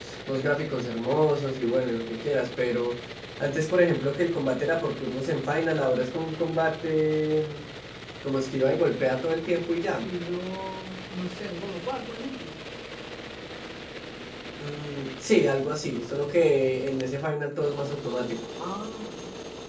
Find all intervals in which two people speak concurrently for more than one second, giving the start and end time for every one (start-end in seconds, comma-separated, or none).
none